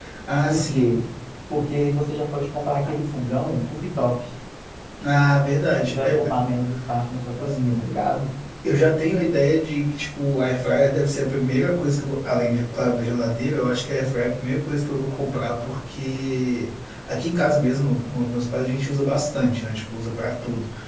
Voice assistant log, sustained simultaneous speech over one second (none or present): none